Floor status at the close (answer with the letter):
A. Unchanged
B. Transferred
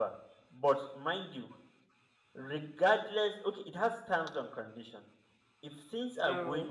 A